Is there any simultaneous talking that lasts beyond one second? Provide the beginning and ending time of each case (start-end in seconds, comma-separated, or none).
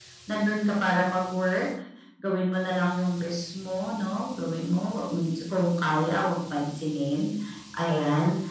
none